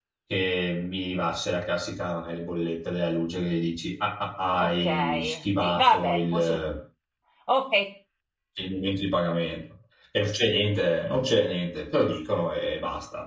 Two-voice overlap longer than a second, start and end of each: 4.6-6.6

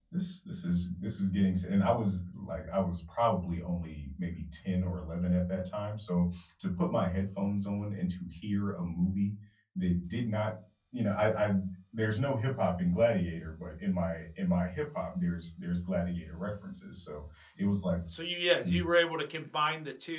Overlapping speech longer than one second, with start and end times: none

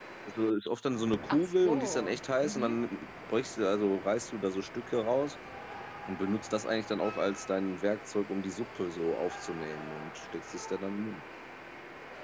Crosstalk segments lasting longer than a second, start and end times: 1.3-2.8

